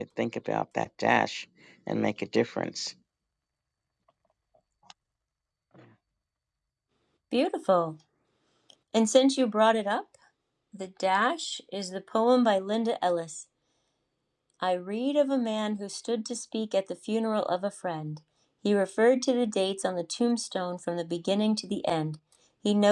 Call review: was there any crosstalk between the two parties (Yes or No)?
No